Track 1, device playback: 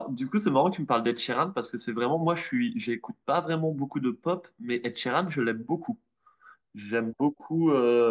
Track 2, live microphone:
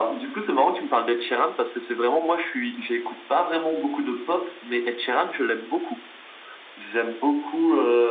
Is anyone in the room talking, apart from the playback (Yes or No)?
No